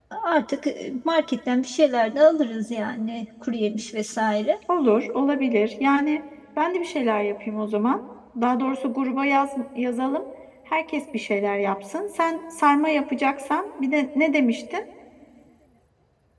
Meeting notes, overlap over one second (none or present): none